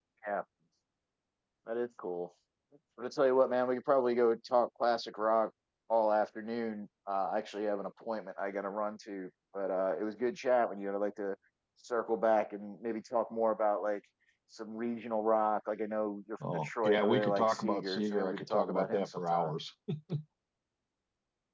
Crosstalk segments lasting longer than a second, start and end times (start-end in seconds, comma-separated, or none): 16.4-19.5